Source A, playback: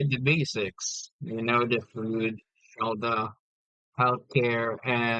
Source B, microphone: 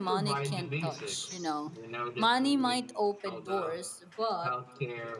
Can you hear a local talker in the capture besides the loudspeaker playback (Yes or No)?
Yes